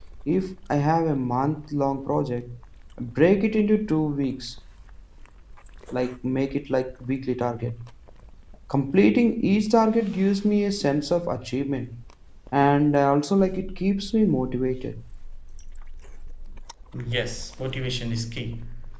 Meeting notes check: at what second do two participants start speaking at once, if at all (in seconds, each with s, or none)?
none